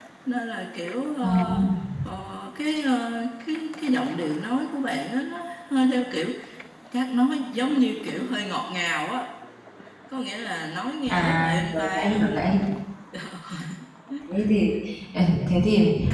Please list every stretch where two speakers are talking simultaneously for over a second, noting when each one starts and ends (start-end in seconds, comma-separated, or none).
11.1-12.6